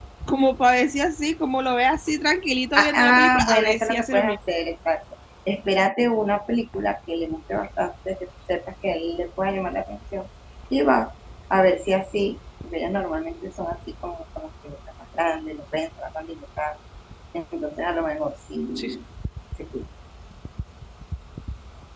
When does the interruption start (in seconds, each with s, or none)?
2.8 s